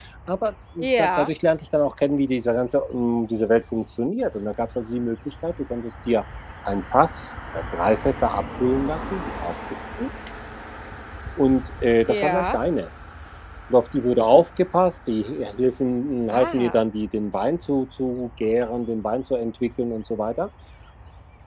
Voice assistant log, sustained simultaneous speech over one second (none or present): none